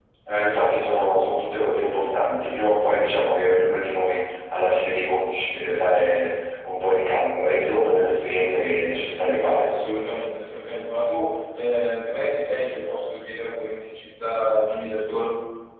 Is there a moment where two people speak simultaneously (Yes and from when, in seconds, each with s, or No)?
No